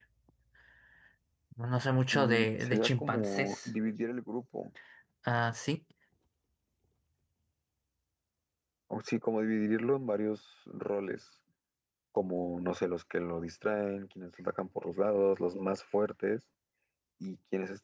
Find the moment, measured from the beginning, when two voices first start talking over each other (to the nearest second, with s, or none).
2 s